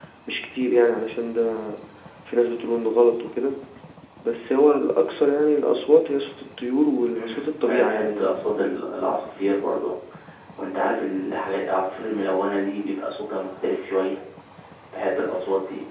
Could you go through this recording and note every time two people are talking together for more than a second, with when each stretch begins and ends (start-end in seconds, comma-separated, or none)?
7.1-8.5